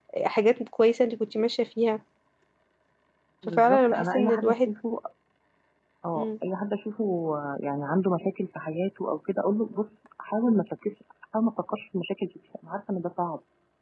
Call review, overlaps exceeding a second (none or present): present